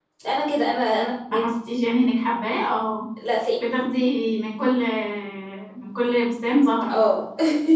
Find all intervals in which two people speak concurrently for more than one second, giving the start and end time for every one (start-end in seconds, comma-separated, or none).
none